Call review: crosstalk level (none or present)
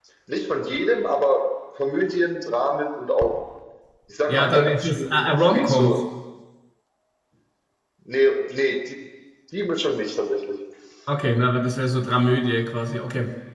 present